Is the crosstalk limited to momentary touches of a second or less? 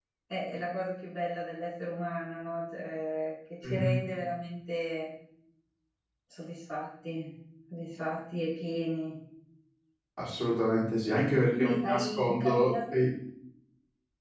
No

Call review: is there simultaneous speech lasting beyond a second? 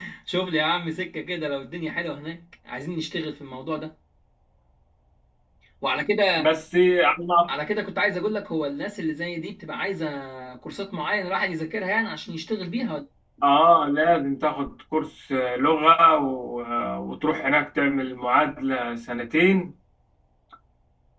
No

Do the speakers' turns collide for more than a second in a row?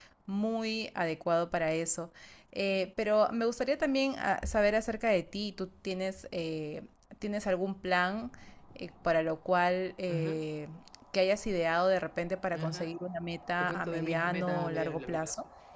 Yes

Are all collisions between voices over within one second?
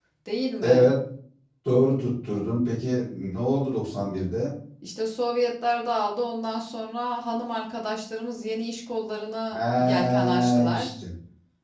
No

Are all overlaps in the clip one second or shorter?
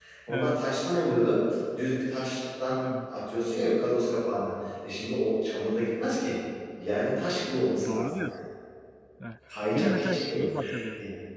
No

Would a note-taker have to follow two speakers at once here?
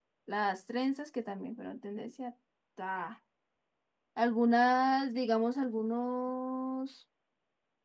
No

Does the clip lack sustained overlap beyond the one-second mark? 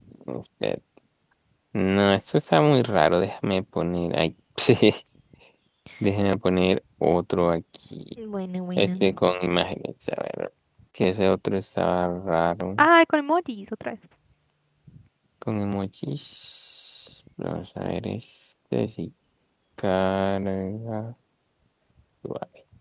Yes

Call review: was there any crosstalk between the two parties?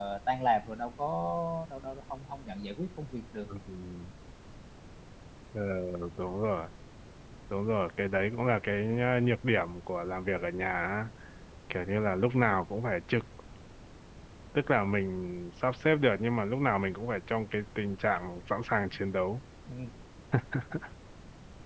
No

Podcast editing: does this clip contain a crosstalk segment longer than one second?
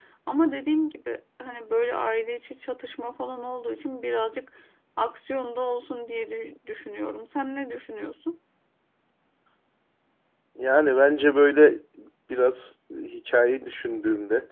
No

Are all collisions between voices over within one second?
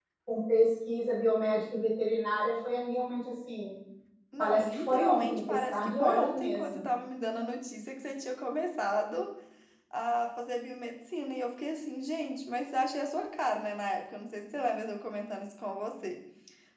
No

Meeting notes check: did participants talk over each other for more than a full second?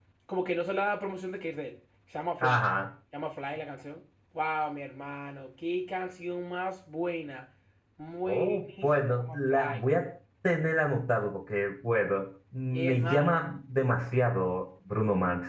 Yes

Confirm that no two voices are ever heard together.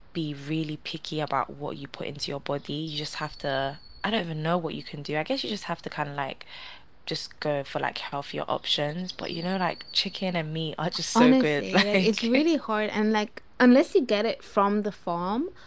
No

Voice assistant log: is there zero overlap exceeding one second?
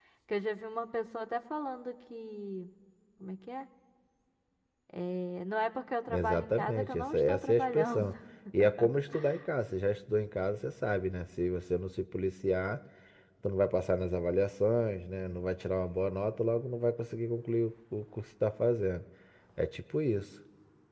No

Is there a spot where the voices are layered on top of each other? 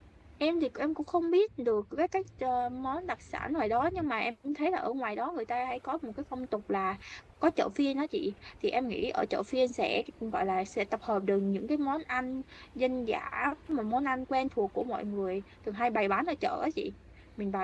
No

